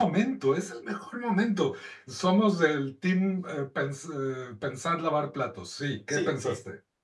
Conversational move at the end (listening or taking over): taking over